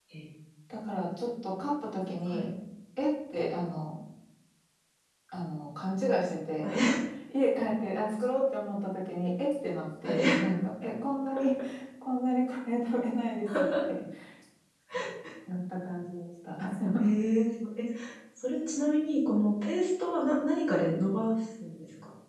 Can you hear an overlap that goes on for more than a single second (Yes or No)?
No